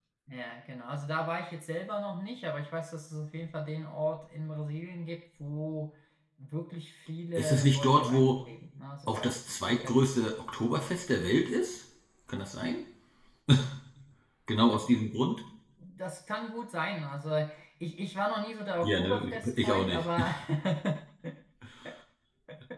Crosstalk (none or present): present